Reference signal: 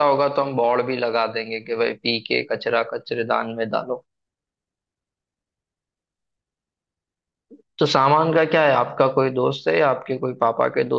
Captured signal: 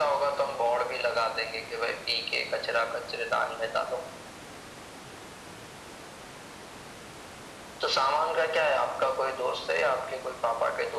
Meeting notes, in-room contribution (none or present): none